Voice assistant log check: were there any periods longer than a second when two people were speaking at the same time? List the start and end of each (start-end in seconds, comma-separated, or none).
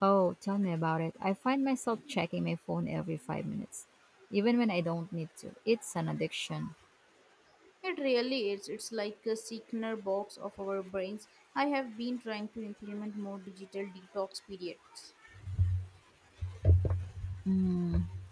none